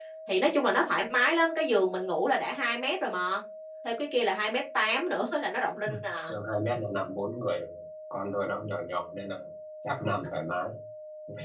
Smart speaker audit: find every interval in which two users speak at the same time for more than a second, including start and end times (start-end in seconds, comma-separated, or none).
none